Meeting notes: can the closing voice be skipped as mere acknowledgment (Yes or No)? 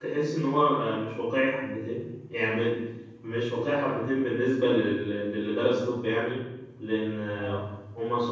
Yes